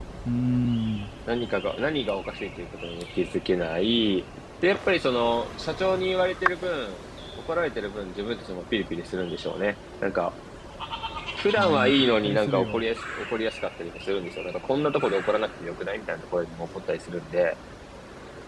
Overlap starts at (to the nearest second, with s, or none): 12 s